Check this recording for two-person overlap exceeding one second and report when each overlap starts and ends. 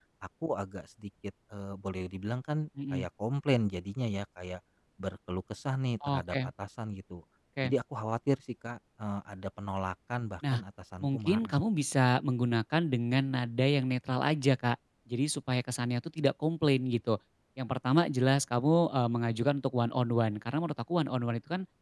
none

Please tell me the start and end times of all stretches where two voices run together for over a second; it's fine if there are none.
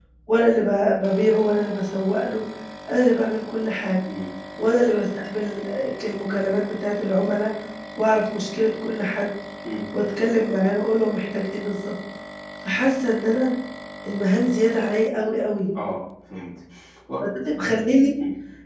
none

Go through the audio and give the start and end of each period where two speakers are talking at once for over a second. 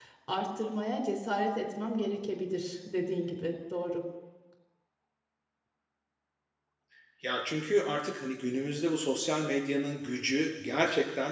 none

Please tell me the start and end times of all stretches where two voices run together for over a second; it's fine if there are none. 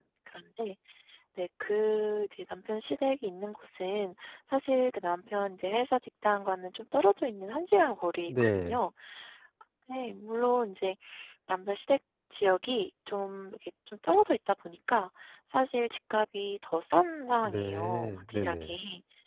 17.4-18.8

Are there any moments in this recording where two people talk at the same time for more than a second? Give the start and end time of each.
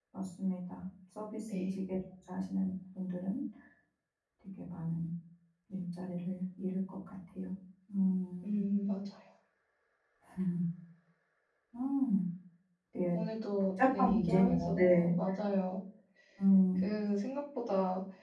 13.8-15.1

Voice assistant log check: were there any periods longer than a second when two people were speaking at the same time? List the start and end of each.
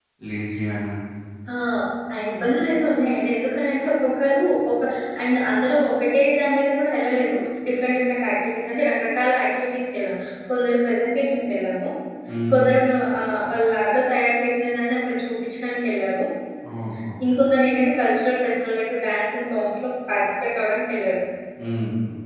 none

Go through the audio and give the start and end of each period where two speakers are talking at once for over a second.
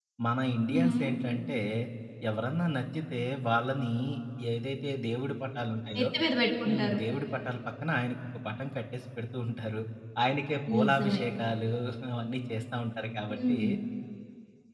none

